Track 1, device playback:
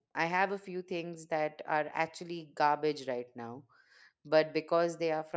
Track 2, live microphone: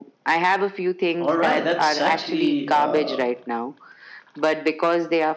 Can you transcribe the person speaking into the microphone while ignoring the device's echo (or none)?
All right, that's actually uh,